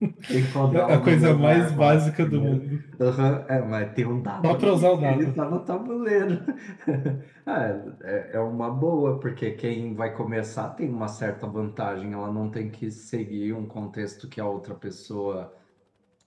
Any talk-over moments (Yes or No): Yes